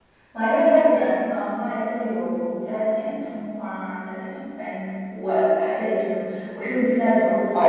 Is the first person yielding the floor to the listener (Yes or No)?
Yes